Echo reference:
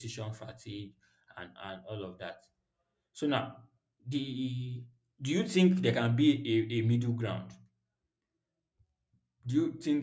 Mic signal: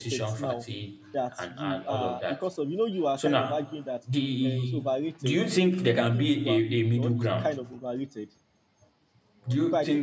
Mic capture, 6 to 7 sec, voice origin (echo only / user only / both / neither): both